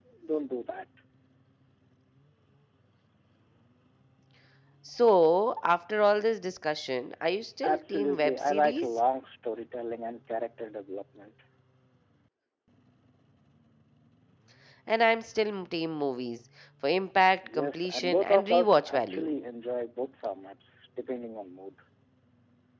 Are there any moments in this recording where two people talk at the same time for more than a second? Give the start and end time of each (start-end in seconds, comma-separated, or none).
7.6-8.9, 17.6-19.3